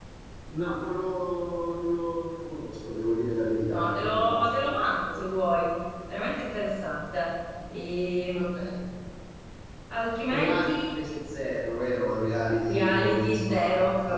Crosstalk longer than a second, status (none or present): present